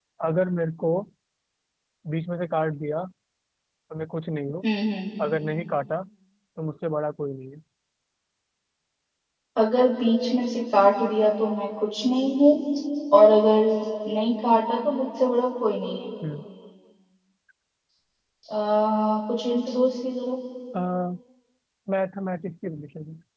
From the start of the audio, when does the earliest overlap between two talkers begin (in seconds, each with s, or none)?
none